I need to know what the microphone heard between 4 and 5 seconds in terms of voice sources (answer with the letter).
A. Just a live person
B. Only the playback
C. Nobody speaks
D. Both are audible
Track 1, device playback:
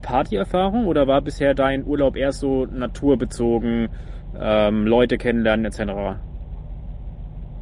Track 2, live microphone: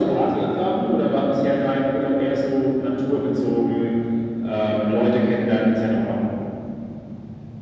B